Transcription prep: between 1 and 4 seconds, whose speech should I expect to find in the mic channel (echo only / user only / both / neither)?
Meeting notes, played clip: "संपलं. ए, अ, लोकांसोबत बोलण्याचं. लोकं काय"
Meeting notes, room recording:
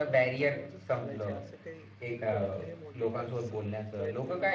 both